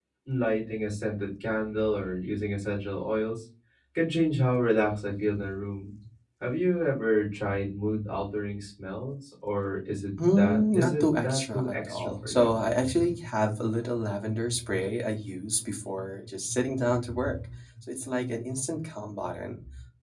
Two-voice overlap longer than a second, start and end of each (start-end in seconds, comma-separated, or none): 10.4-12.6